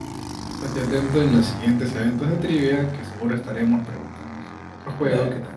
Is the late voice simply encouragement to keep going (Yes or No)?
No